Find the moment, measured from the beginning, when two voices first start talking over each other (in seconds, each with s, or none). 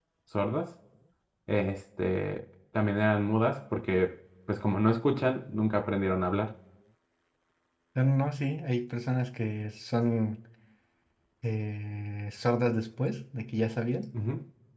none